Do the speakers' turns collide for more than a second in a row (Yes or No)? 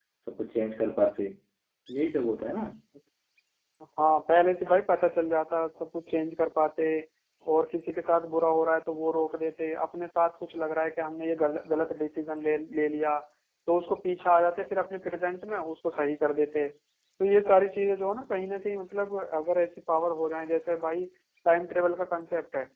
No